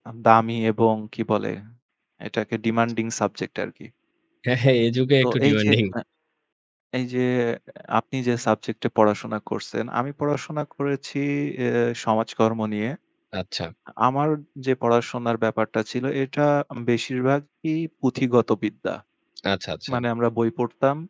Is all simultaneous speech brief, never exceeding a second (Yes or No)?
Yes